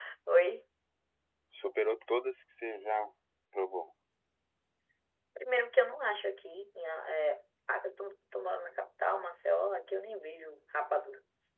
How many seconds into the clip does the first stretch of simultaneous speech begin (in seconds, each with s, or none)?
none